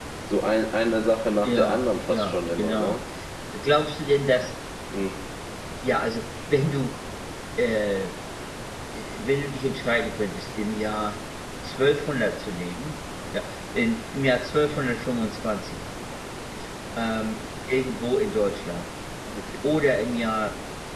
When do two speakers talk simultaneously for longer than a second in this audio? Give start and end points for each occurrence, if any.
1.4-3.0

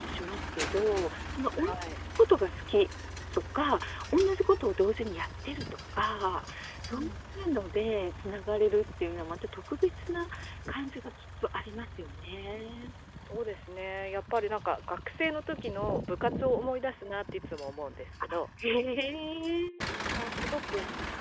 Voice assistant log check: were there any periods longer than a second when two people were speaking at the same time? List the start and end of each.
none

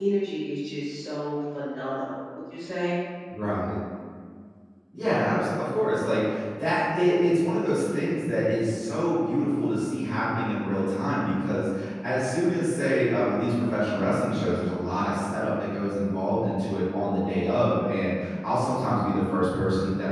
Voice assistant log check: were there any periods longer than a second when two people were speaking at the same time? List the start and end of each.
none

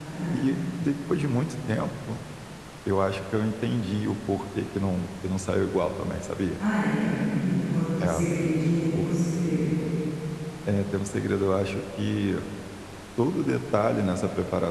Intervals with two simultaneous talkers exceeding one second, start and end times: none

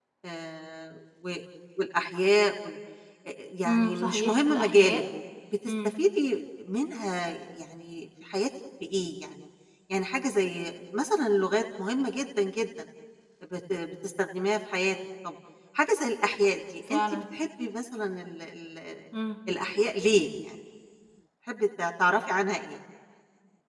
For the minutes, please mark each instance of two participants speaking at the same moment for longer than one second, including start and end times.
3.7-5.0

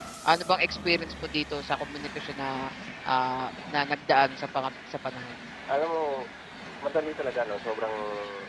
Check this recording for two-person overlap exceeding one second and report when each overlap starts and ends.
none

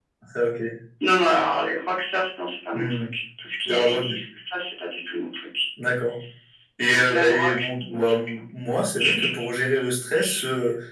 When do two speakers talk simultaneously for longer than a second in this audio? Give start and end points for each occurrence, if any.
6.9-8.2

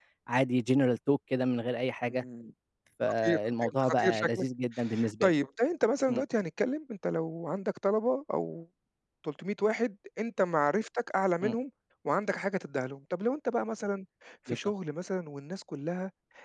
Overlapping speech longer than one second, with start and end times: 3.2-4.4

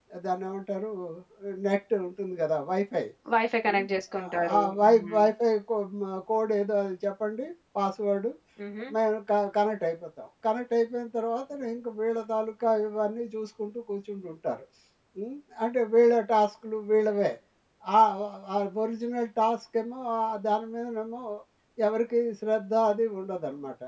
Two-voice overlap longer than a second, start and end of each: 3.7-5.2

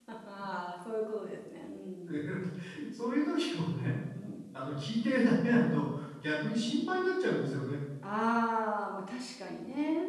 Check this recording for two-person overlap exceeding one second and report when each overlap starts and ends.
none

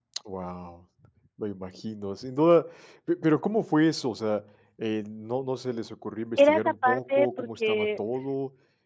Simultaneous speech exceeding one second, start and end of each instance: 6.4-7.9

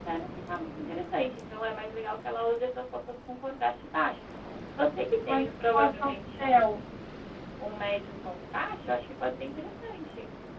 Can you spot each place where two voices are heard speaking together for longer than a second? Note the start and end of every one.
5.3-6.6

